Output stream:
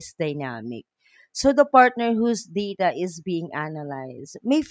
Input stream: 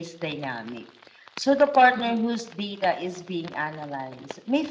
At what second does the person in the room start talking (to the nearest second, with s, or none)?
2 s